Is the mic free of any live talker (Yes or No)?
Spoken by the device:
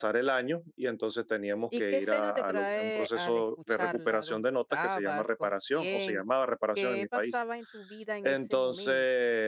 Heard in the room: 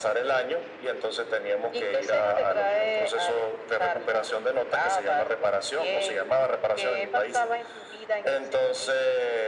Yes